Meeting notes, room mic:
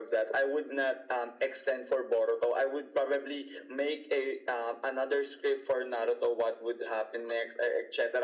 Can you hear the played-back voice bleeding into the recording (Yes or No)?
Yes